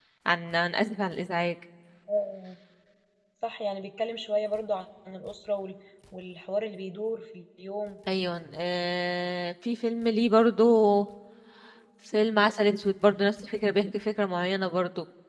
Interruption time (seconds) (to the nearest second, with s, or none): none